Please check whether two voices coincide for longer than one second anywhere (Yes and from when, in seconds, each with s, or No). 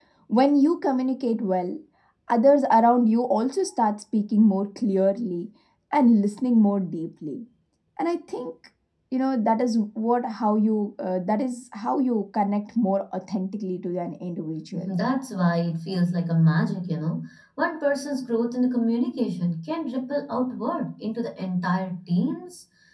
No